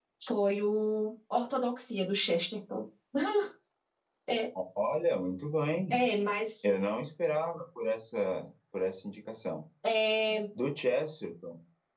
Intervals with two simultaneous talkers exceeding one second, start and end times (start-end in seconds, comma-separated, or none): none